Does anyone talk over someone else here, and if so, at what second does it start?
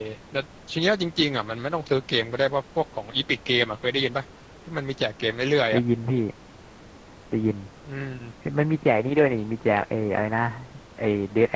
none

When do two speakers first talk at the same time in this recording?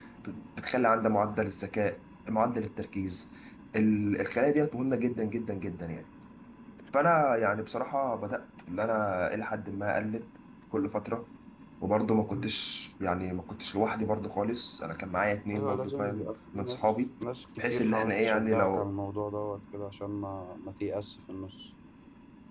15.5 s

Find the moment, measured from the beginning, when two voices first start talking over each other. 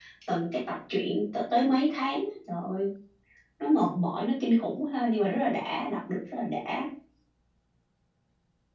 none

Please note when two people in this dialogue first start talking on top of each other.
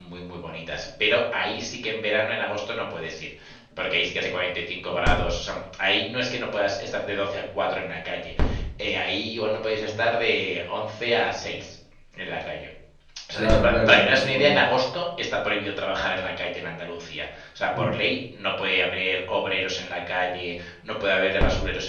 13.4 s

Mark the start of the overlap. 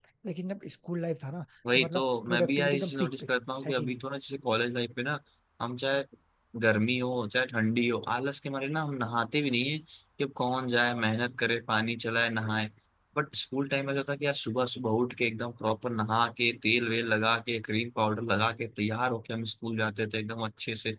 1.6 s

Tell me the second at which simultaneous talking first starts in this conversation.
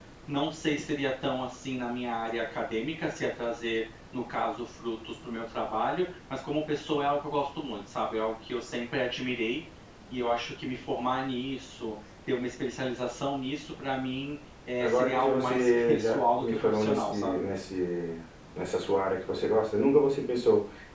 14.8 s

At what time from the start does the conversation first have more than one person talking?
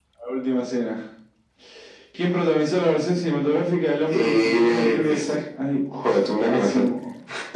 4.1 s

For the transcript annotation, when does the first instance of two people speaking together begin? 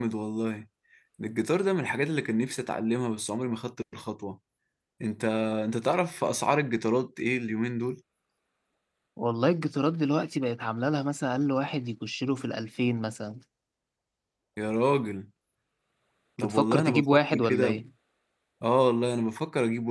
16.4 s

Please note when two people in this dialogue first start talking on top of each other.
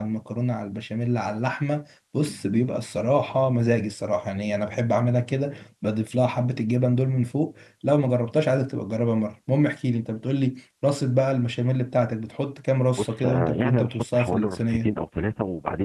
13.0 s

